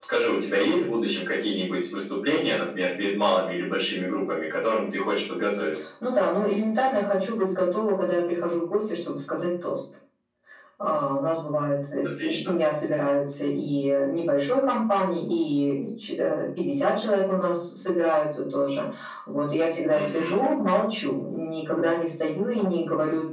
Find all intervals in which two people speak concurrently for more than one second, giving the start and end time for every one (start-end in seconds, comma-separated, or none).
none